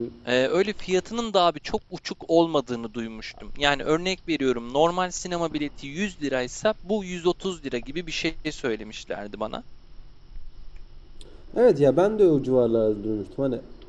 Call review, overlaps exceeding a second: none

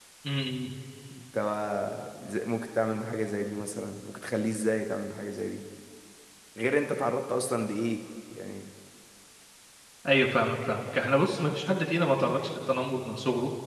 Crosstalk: none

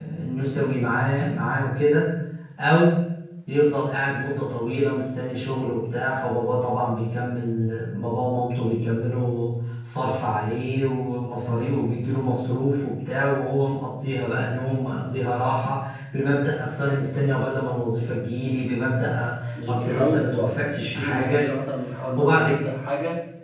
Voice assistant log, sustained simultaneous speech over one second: present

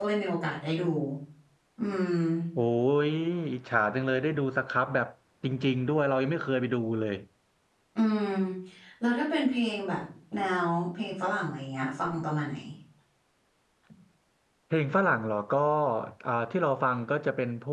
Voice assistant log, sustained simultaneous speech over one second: none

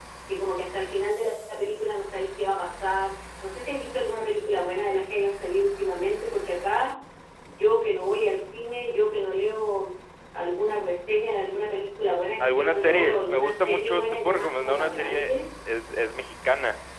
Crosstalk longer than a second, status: present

